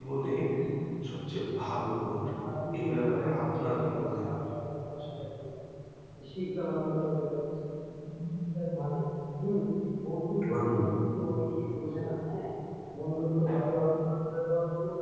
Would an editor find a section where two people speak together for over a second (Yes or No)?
Yes